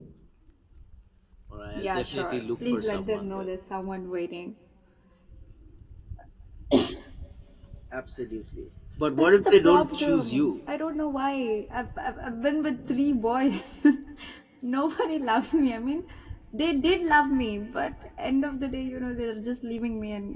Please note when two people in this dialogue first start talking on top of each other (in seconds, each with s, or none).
1.8 s